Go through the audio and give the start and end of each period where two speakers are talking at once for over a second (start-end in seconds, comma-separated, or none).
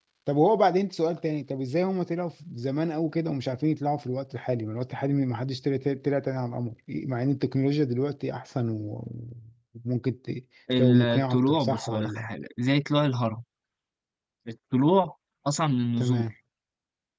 10.8-12.3